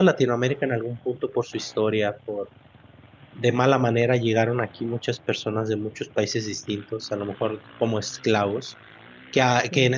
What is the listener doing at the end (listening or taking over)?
listening